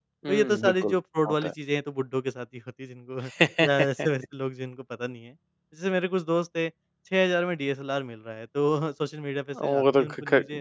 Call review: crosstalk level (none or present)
present